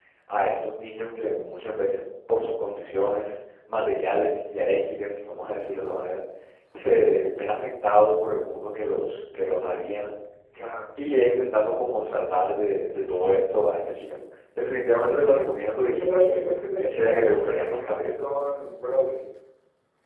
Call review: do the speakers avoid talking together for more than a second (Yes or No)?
No